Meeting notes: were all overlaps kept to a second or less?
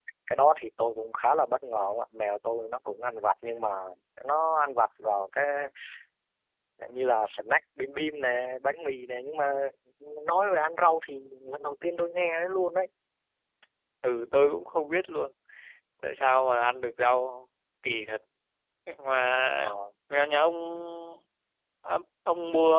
Yes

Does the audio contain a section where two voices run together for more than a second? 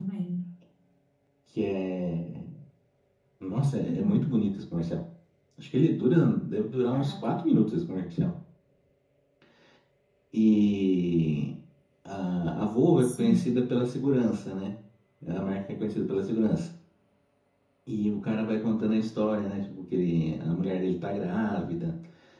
No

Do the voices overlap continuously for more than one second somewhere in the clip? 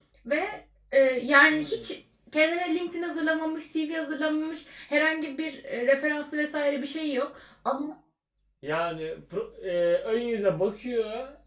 No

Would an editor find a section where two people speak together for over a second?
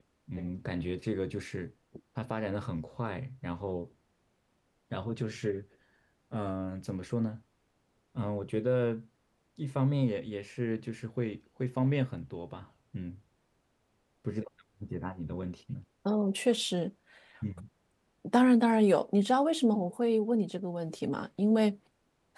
No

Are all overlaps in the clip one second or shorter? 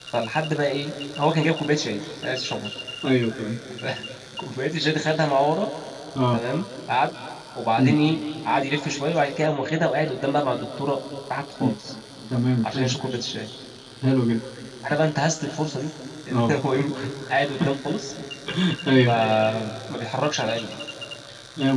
Yes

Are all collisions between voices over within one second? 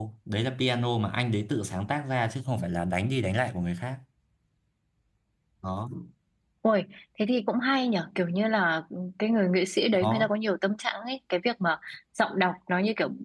Yes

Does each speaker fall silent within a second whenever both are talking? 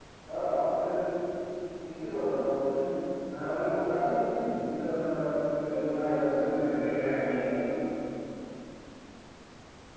No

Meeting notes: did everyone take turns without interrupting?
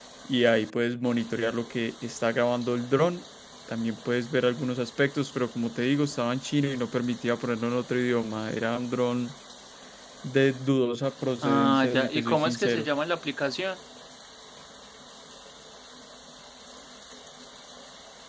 No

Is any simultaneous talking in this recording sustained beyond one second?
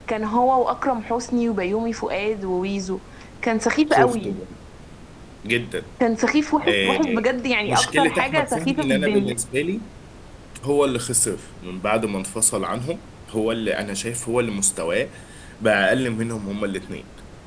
Yes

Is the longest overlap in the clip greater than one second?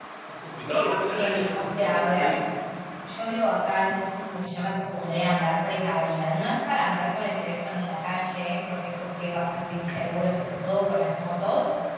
Yes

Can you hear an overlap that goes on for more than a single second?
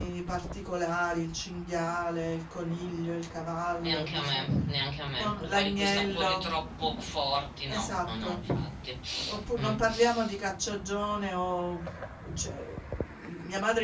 Yes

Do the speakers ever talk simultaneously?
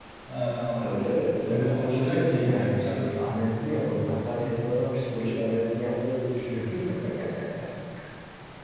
Yes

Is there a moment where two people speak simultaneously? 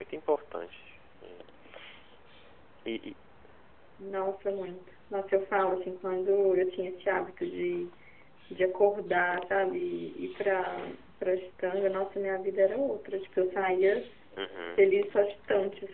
No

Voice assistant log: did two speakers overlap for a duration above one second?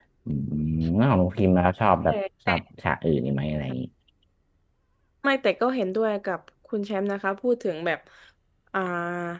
No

